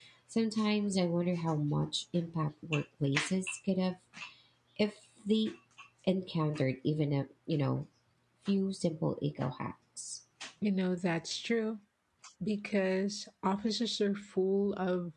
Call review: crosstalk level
none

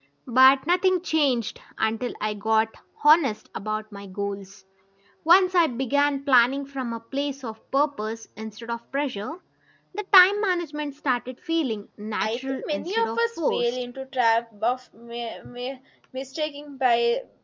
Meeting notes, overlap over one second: present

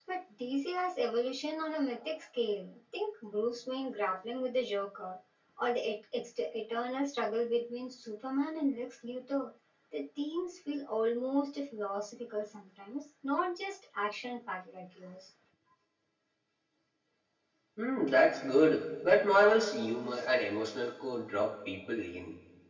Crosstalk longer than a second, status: none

